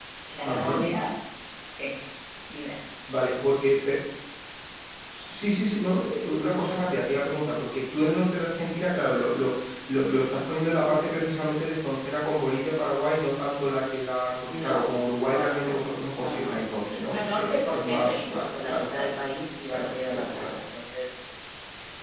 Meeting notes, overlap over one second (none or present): present